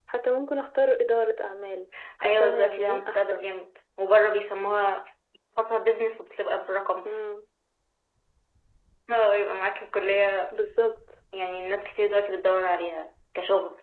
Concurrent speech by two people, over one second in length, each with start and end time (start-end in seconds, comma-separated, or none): 2.2-3.5